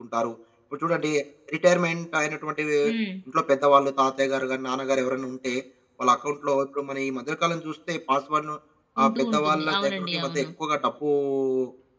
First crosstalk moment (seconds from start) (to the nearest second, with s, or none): 9 s